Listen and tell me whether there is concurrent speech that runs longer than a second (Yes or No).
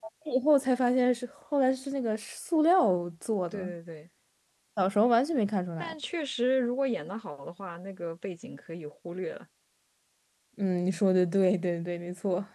No